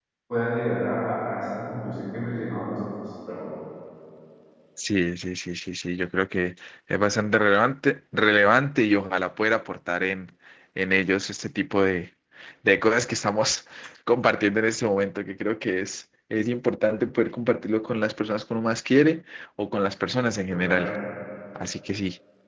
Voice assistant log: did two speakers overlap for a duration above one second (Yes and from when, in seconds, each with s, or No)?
No